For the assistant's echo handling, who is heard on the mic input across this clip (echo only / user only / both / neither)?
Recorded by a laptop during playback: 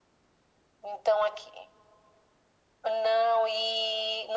echo only